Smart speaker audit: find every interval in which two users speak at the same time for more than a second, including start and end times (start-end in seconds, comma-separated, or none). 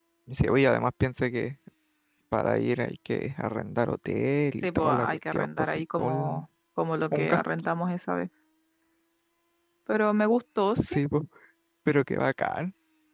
4.6-6.5